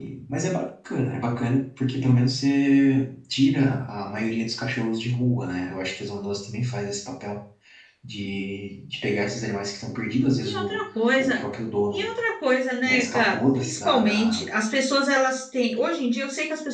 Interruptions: present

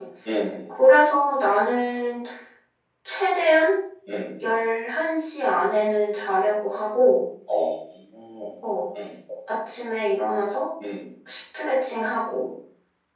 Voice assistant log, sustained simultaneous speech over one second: none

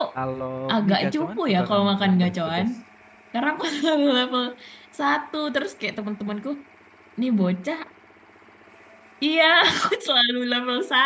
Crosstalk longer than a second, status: present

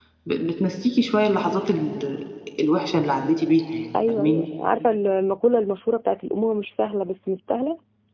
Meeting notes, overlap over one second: none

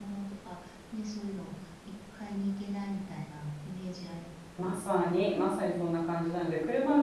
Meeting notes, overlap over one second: none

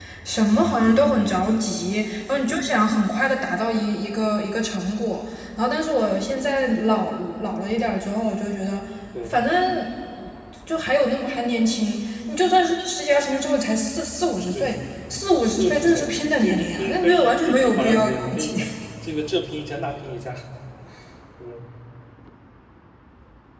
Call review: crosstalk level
present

